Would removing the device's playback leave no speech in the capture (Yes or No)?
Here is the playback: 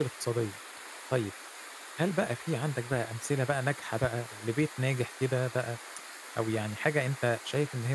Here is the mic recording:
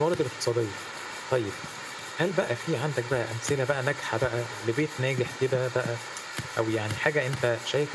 Yes